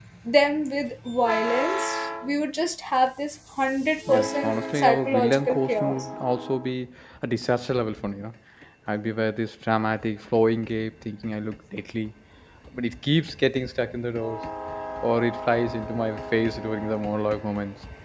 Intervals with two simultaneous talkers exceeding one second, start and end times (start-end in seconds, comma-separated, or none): 4.1-6.0